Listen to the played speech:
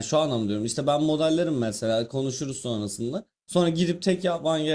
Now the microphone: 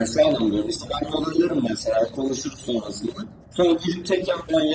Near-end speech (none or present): none